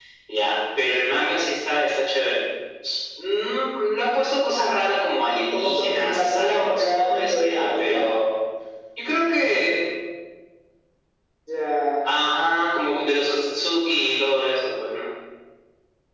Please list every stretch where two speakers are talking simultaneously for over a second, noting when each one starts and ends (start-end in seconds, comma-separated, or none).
5.5-8.0